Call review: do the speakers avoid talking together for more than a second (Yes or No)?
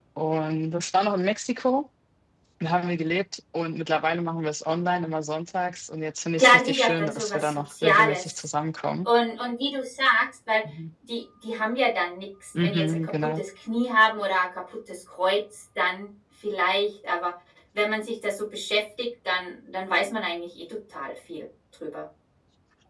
No